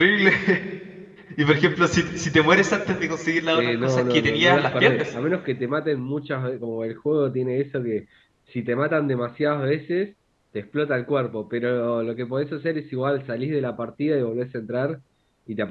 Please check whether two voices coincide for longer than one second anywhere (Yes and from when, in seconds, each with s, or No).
Yes, from 3.5 s